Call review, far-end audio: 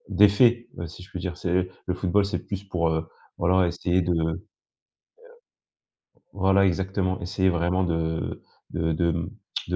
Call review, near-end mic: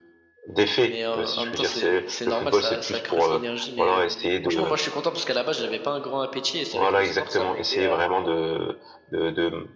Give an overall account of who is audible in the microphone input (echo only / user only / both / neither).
both